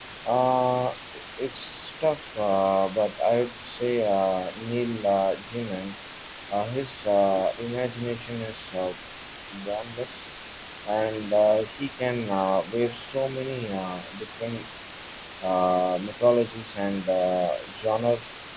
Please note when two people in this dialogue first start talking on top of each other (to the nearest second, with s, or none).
none